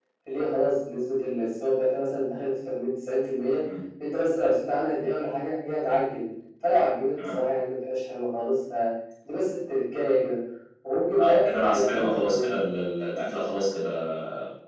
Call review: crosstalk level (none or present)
present